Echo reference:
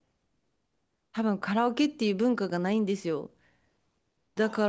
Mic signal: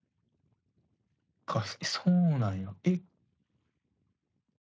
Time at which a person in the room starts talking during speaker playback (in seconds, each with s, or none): 1.4 s